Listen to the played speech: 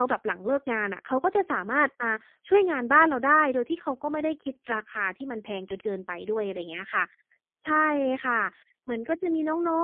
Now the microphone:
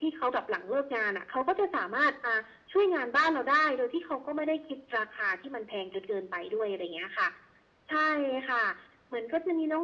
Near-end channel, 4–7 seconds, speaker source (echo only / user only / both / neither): echo only